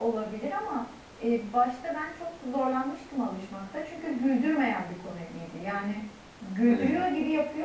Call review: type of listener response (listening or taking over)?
listening